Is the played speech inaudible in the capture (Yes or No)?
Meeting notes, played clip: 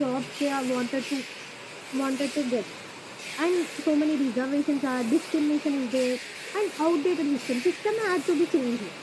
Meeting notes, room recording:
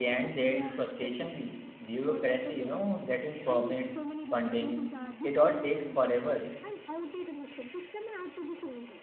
No